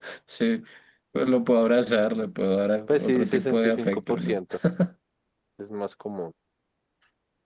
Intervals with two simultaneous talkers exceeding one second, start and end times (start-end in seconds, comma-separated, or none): 2.9-4.4